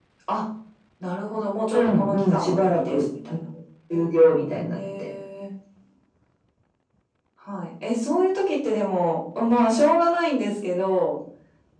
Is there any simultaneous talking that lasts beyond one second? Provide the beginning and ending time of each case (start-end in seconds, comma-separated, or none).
1.7-3.0